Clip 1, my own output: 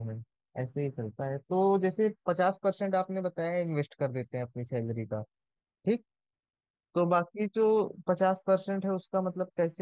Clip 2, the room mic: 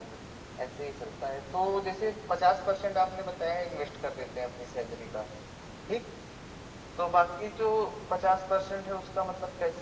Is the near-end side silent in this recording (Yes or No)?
Yes